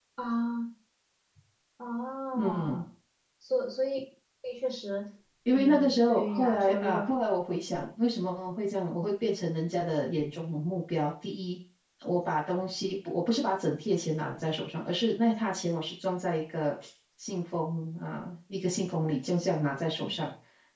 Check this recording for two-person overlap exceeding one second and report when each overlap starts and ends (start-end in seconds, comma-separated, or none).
5.5-7.0